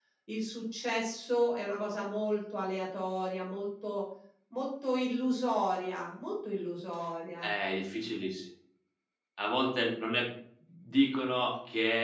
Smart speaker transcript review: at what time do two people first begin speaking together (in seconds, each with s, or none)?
none